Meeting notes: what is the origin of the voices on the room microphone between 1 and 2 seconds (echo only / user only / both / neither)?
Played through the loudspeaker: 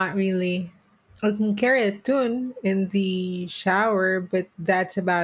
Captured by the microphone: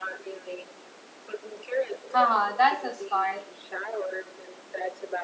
echo only